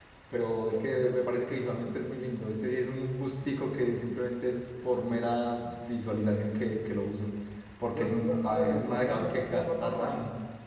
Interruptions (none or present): present